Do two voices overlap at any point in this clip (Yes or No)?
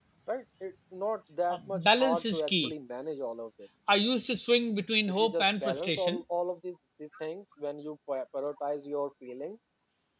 Yes